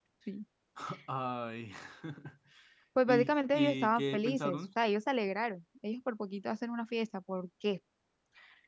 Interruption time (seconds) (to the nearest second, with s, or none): 3 s